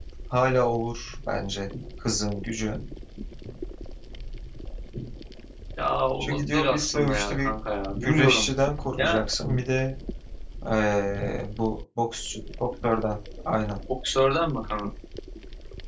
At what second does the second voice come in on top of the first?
6 s

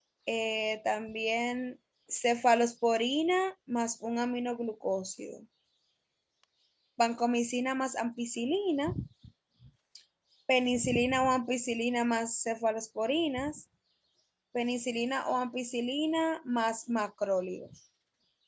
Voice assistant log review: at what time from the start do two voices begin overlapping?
none

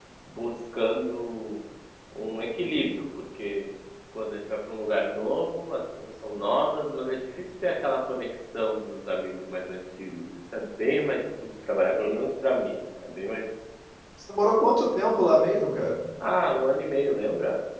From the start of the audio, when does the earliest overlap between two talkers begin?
none

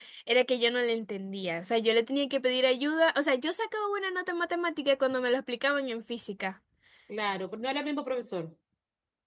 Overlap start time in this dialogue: none

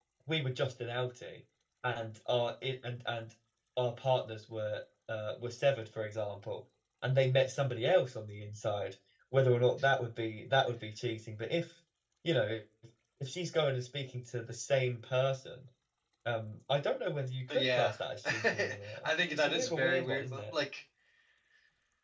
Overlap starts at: 17 s

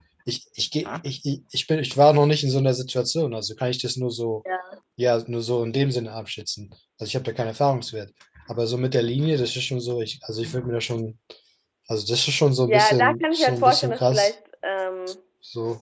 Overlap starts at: 13 s

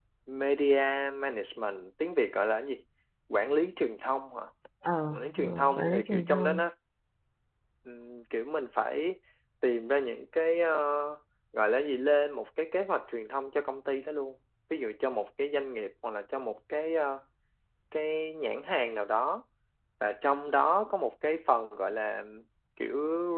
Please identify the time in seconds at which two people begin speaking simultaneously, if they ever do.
5 s

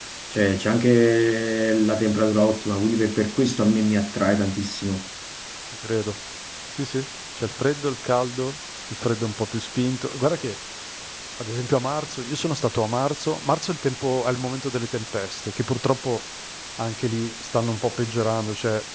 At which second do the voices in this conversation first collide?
none

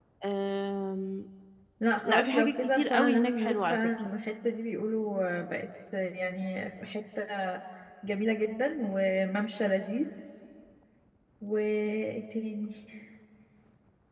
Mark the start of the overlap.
2 s

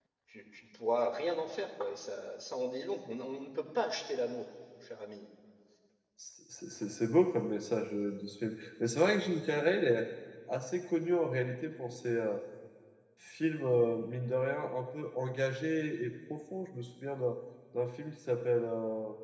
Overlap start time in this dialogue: none

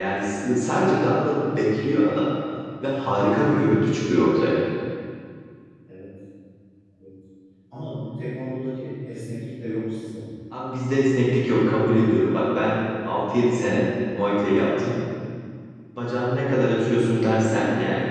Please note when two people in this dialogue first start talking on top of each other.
none

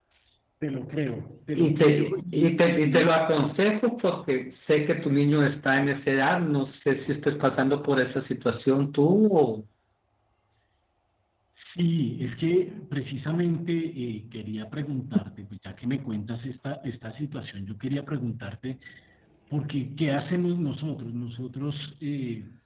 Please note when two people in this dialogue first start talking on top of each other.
2 s

